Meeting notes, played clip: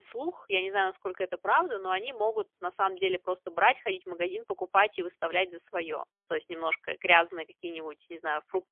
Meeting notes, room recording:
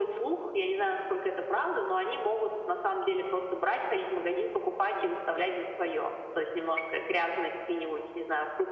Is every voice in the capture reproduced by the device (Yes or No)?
Yes